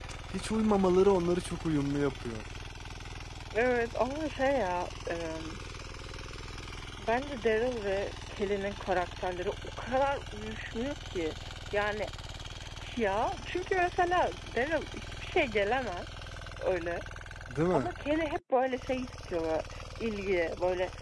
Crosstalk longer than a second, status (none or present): none